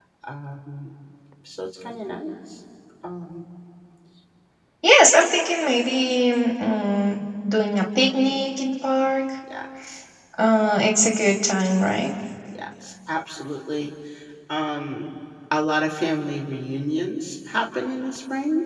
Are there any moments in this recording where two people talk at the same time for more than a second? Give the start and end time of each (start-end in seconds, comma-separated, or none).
none